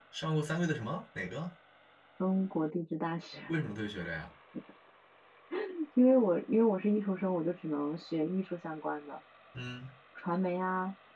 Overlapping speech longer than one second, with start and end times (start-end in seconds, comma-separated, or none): none